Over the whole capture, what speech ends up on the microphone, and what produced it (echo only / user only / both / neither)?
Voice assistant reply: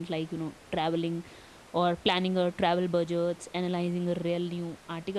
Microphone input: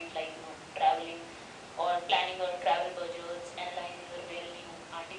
echo only